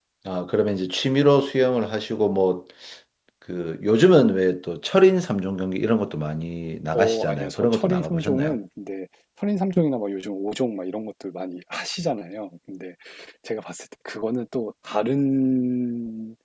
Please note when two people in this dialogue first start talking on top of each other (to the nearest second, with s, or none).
7 s